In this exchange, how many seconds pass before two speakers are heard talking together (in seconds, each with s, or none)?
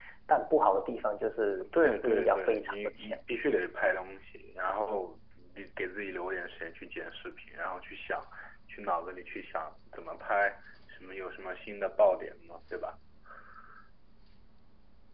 1.6 s